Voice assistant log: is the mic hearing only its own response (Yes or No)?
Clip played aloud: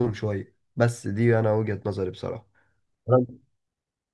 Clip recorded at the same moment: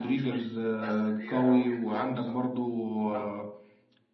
No